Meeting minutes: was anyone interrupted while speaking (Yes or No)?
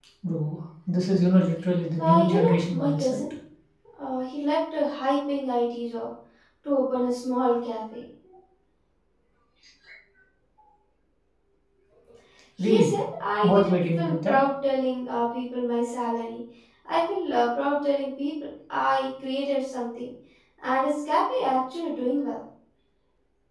Yes